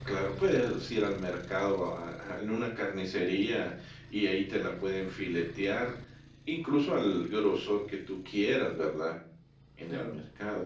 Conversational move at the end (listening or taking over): listening